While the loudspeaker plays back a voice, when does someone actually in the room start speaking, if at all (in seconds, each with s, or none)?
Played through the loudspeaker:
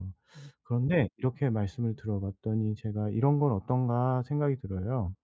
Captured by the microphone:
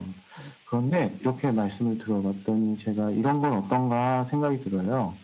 none